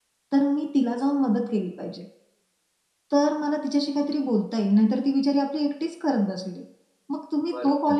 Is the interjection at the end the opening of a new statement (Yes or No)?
No